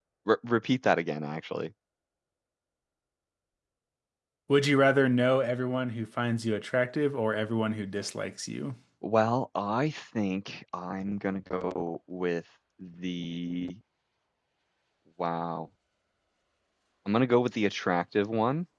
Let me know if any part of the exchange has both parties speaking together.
No

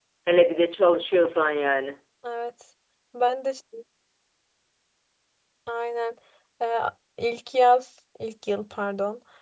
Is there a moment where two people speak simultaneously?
No

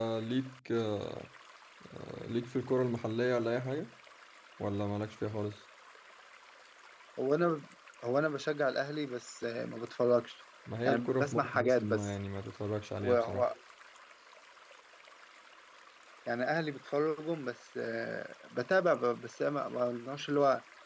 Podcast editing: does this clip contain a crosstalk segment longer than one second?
Yes, from 10.8 s

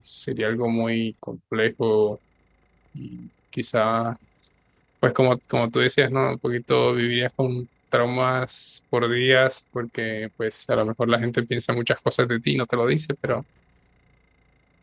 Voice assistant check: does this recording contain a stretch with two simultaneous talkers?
No

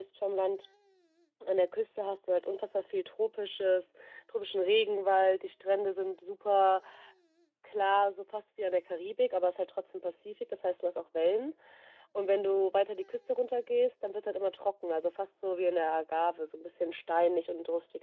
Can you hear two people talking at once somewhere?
No

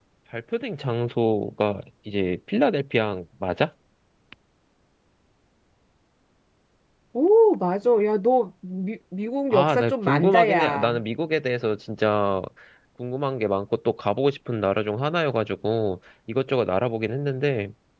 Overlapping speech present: Yes, from 9.5 s

